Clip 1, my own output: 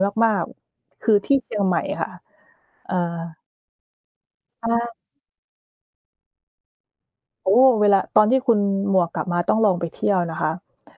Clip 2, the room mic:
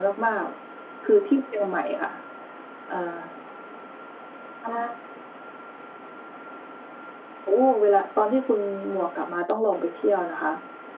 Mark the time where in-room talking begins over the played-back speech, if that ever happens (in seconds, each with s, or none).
none